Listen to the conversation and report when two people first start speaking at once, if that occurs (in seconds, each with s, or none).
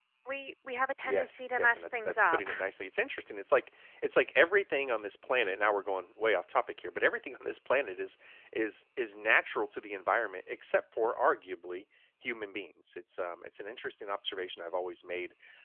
1.0 s